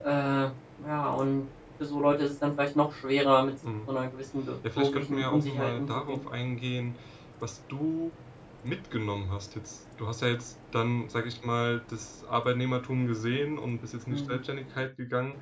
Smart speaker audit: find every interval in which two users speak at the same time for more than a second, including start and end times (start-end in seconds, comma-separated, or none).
4.8-6.2